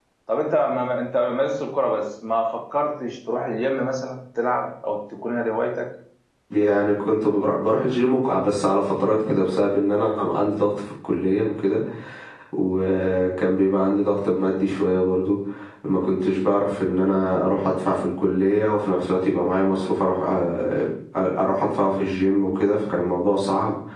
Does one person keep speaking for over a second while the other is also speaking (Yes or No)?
No